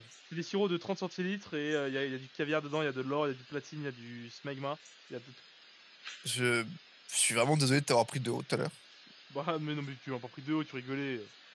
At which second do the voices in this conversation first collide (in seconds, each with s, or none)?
none